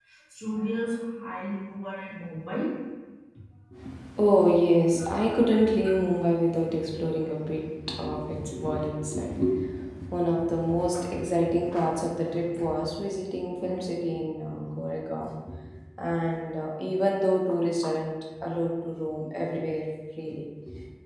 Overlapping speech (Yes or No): No